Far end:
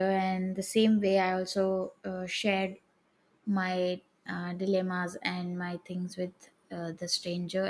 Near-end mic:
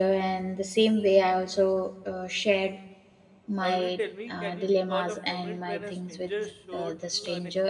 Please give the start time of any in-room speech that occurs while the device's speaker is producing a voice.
3.6 s

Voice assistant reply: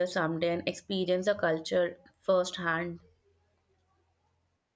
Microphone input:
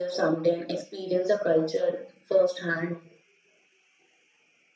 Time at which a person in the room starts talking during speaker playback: none

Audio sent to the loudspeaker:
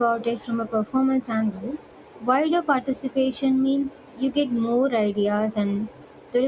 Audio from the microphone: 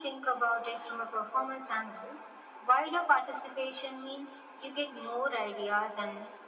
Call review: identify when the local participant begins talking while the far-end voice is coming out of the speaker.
none

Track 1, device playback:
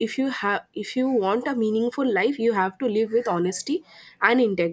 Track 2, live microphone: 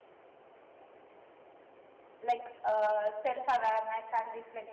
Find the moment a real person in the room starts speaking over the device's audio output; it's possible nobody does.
2.2 s

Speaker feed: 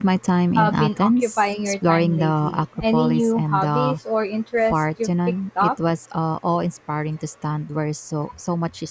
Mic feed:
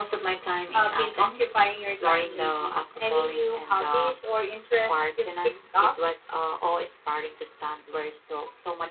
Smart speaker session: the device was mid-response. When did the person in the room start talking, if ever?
none

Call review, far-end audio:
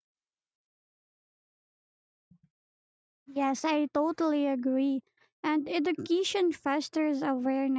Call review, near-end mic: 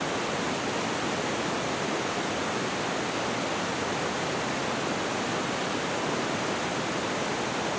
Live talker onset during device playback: none

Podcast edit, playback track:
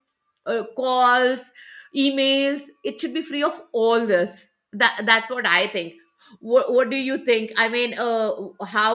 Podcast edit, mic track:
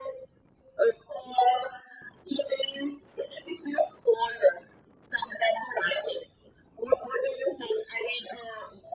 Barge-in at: none

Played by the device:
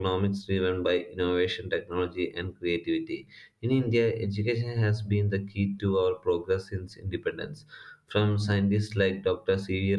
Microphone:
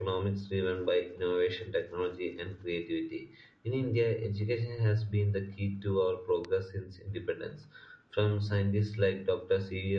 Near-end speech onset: none

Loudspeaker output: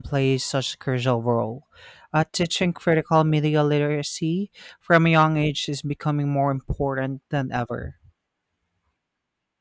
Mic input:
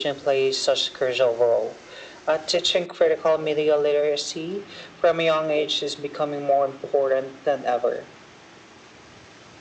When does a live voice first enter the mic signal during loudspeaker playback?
none

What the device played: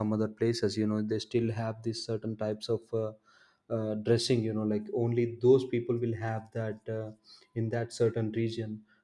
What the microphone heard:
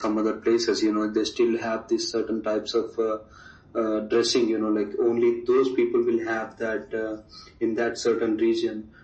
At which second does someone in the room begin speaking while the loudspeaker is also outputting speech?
none

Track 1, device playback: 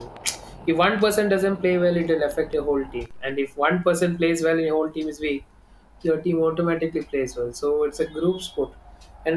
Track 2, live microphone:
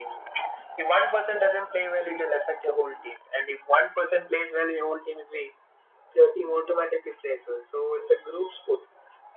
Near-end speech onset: none

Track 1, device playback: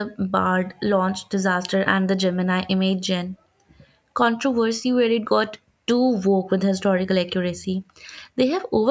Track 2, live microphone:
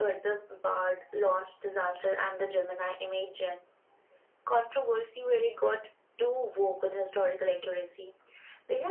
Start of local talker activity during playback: none

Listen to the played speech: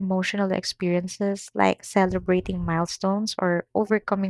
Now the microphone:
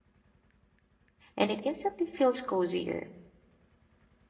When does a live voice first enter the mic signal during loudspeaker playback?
1.4 s

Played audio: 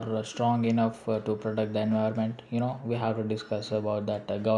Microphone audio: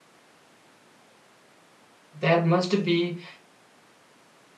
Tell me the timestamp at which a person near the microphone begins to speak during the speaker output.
2.2 s

